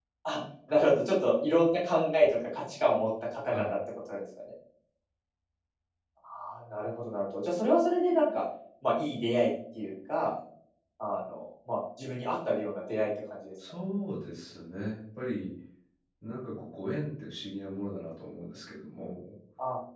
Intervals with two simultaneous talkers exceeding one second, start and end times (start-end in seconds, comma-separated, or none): none